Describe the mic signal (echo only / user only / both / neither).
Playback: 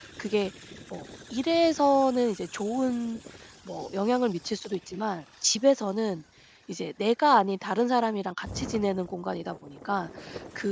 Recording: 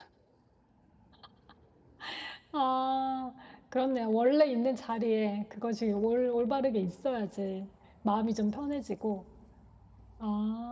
user only